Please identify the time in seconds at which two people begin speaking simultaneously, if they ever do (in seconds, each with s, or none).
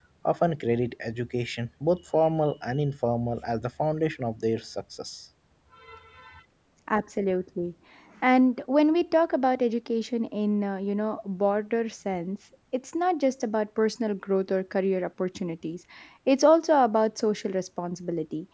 none